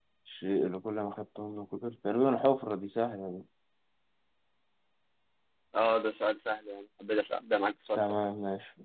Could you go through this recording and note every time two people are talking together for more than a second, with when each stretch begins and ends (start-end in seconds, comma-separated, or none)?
none